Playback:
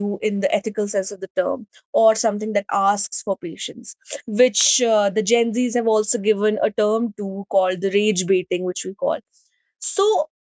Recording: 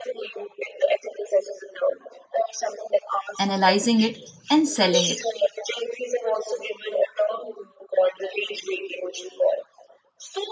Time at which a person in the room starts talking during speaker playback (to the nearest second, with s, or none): 3 s